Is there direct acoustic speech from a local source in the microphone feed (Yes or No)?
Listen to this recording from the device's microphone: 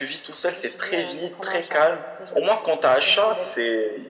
No